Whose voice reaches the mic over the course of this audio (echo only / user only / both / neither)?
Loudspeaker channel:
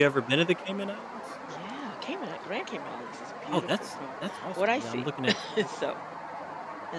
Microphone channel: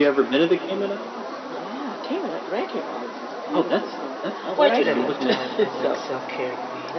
both